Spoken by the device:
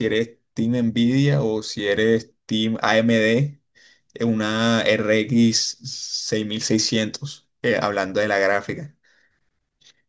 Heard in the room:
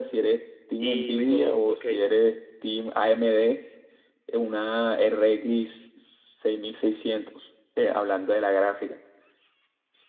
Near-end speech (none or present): present